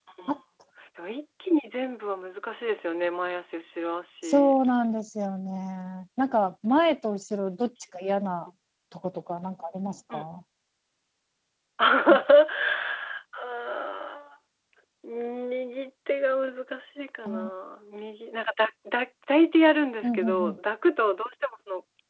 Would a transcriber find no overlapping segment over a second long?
Yes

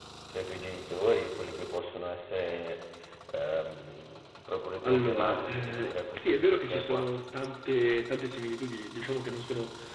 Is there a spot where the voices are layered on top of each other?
Yes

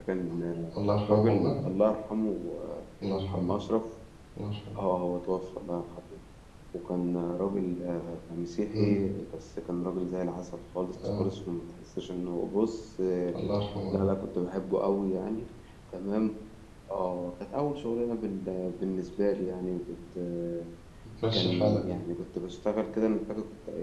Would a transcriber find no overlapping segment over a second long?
Yes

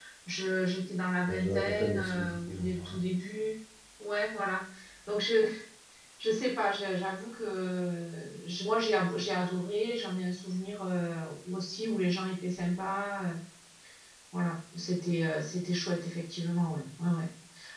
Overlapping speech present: Yes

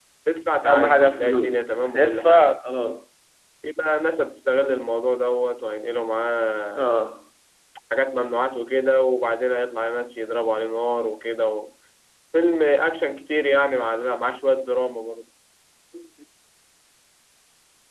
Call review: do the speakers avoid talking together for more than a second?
No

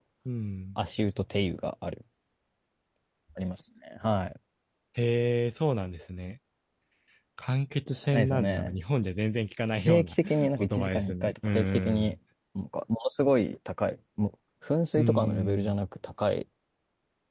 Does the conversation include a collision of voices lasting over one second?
Yes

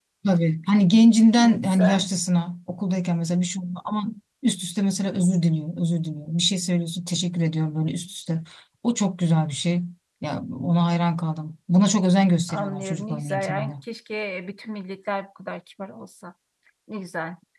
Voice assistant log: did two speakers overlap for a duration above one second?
Yes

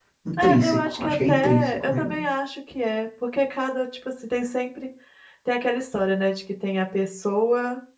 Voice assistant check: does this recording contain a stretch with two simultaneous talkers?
Yes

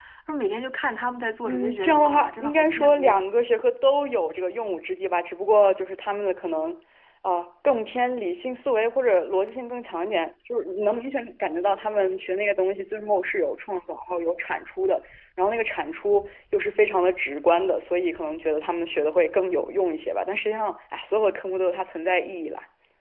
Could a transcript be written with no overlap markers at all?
No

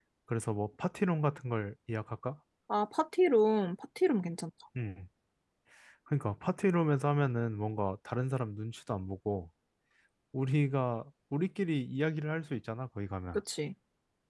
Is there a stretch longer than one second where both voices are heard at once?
No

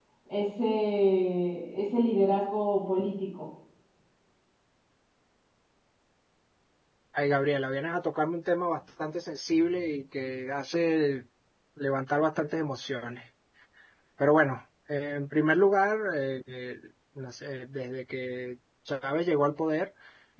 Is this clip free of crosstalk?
Yes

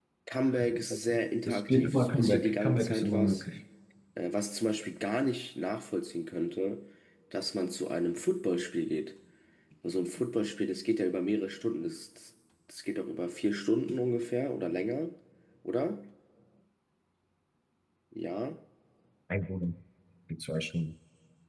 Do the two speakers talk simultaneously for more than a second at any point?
Yes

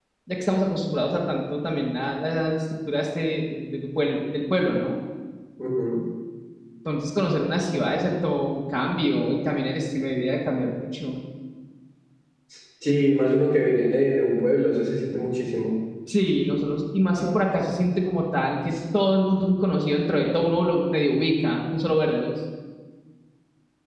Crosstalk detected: No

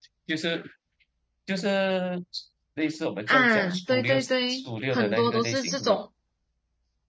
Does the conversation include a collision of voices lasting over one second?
Yes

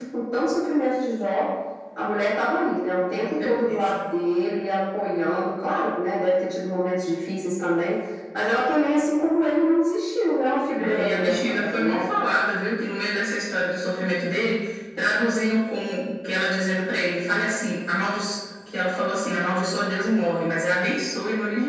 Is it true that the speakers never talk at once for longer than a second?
No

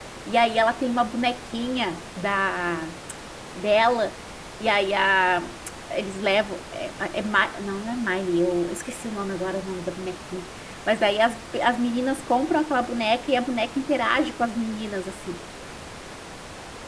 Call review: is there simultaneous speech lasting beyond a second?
No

